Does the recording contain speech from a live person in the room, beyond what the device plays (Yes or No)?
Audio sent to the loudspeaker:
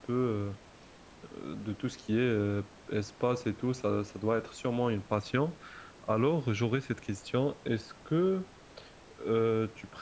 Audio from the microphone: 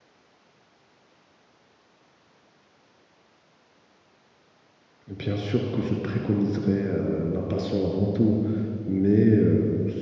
Yes